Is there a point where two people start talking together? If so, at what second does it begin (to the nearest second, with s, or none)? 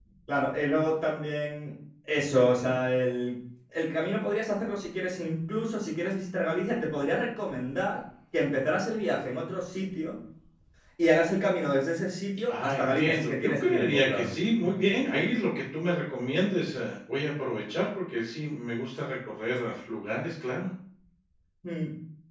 12 s